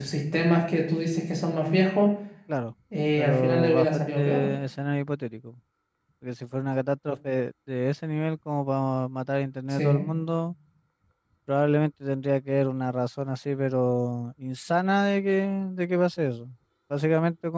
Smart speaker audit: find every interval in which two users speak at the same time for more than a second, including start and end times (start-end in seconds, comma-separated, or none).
3.2-4.5